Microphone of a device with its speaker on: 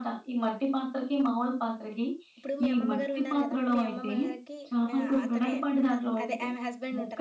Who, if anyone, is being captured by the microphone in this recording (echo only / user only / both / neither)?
both